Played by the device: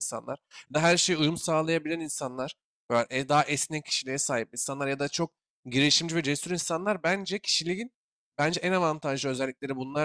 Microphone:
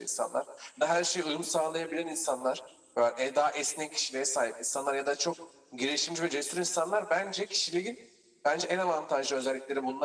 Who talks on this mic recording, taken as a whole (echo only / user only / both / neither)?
echo only